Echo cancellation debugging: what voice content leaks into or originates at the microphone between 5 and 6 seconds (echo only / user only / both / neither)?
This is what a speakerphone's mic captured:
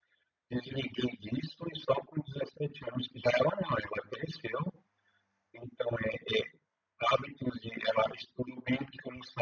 echo only